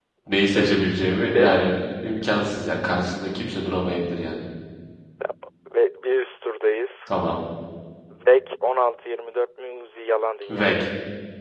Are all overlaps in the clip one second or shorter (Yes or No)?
No